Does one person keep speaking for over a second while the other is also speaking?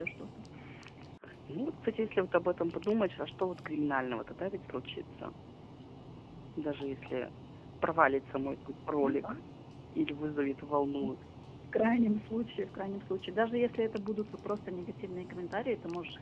No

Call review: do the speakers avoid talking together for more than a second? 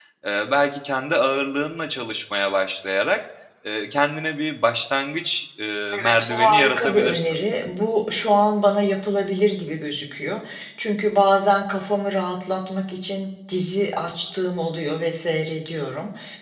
No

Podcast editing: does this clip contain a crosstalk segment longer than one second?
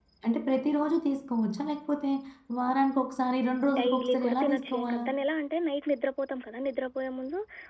Yes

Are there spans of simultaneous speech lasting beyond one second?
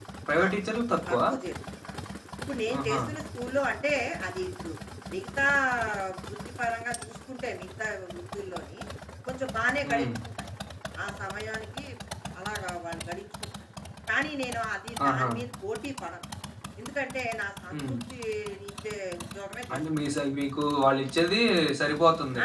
No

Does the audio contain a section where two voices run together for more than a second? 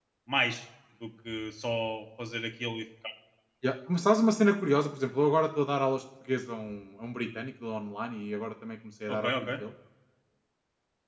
No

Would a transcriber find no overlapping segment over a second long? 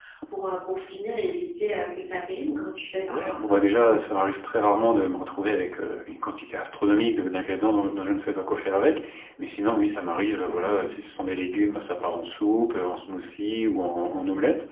Yes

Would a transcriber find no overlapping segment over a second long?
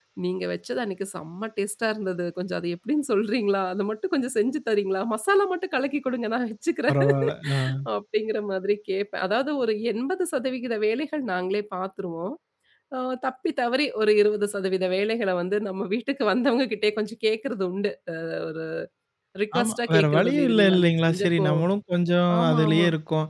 No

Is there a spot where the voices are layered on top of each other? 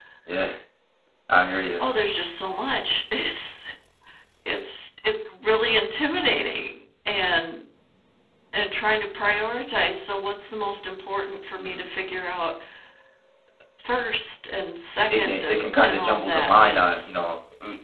Yes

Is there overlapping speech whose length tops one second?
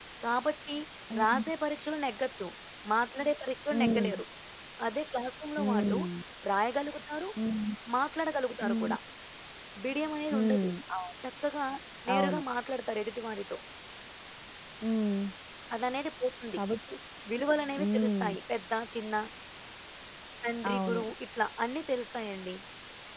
No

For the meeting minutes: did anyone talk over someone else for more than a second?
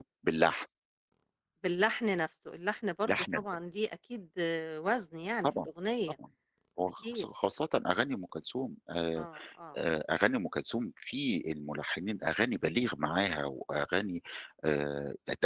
No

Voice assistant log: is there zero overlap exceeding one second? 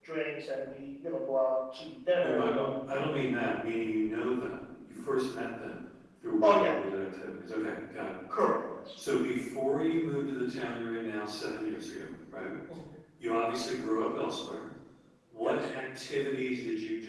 Yes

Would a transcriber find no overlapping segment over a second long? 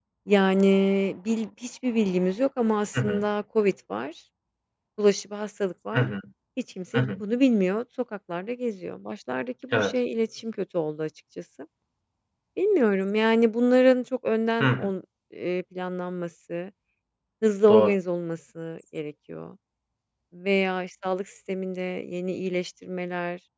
Yes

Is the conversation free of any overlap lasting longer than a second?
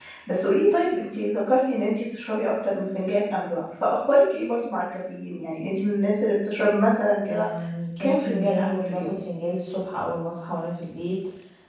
No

